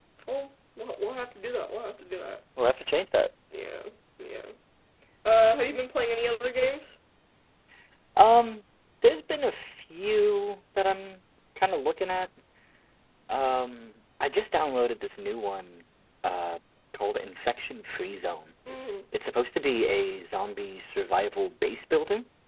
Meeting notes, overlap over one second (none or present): none